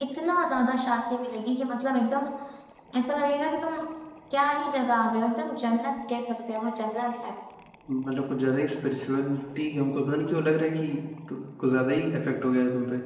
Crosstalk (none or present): none